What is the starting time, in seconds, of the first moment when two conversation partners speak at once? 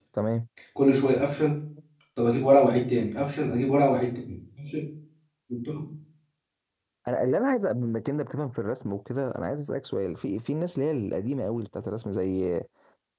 none

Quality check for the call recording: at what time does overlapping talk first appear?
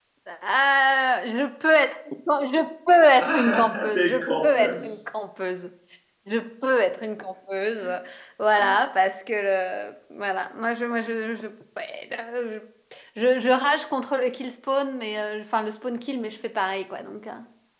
3.2 s

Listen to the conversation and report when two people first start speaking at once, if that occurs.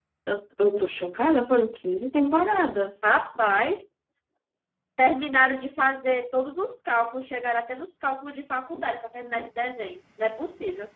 none

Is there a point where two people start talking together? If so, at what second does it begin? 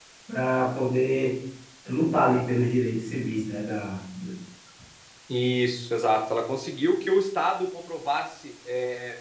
none

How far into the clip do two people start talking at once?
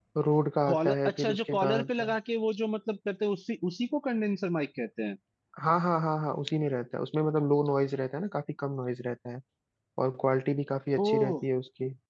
0.7 s

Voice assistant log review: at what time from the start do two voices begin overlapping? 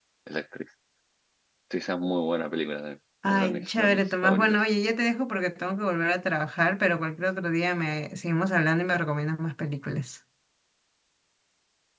3.2 s

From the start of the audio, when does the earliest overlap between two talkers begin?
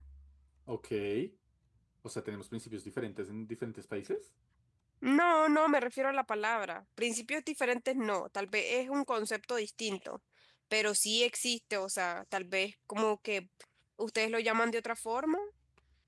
none

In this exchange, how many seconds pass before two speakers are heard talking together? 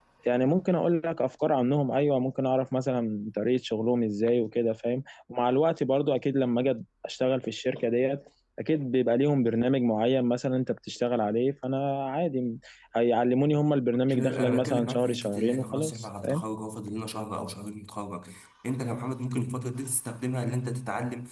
14.1 s

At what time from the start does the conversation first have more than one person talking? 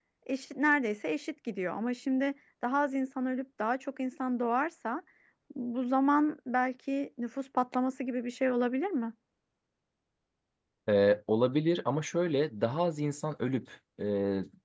none

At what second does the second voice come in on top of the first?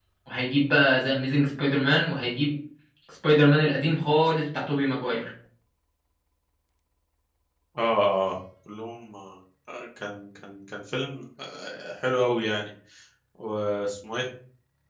none

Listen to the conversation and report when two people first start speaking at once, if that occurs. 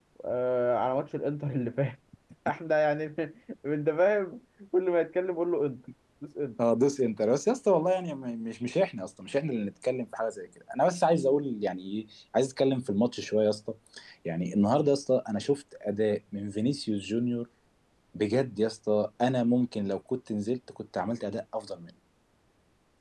none

